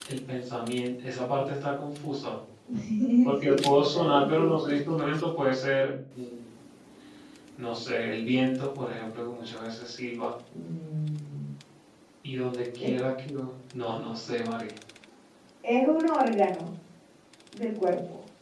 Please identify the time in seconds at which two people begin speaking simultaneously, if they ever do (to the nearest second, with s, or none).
3 s